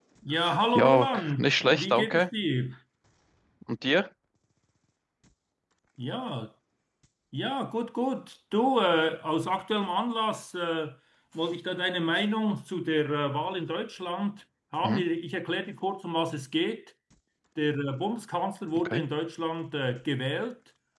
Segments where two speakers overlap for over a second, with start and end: 0.8-2.2

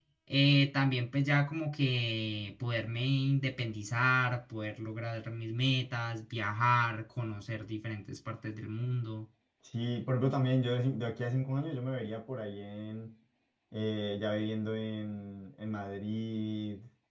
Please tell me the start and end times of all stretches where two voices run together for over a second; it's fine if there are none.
none

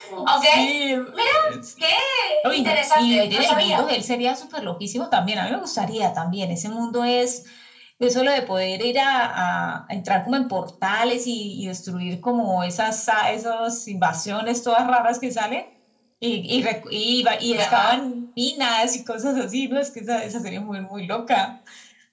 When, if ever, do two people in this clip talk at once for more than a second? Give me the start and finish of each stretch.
2.5-3.8

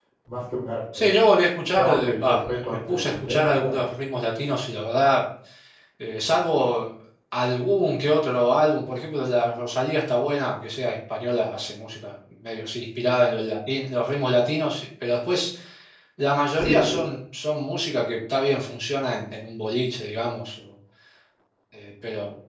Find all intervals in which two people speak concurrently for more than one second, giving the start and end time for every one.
1.8-3.8

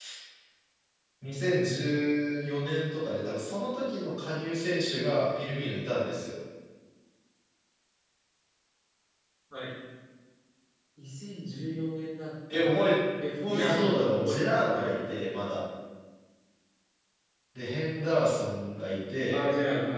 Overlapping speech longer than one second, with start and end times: 13.5-15.2

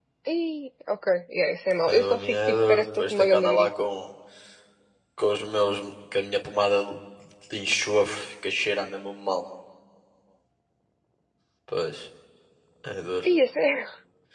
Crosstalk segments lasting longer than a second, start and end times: 1.9-3.7

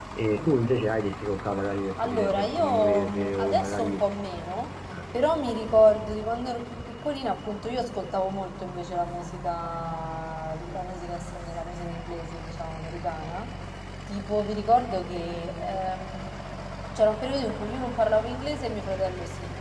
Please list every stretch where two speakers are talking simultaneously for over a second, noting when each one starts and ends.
2.0-4.1

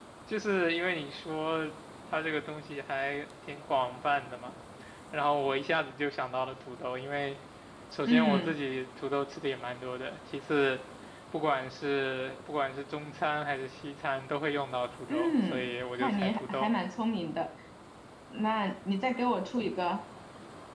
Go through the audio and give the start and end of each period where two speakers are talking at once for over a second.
15.1-16.7

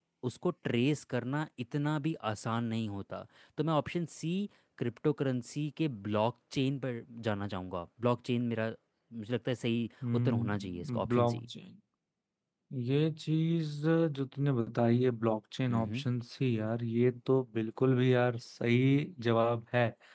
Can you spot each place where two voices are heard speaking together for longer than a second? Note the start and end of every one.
10.1-11.4

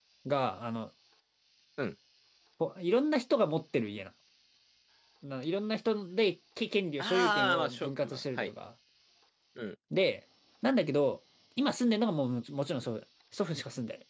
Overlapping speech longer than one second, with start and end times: 7.0-8.5

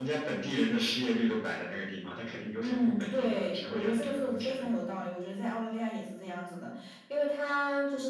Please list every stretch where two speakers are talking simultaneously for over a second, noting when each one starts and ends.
2.6-4.7

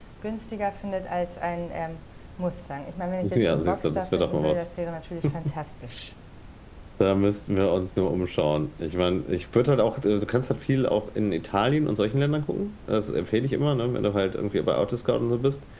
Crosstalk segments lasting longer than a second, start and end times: 3.2-4.6

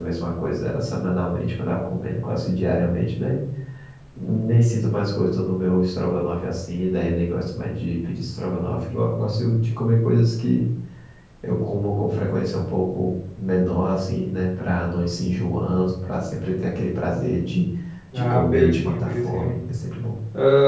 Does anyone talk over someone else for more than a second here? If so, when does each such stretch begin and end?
18.1-19.5

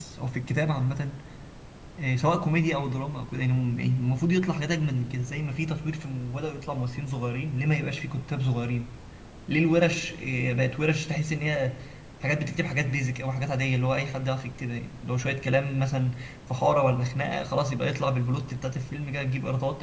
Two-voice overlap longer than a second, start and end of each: none

